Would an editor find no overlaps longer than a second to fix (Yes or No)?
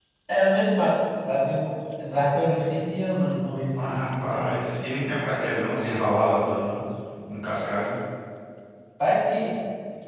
Yes